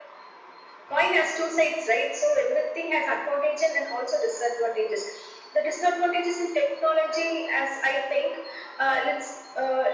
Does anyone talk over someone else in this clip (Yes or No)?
No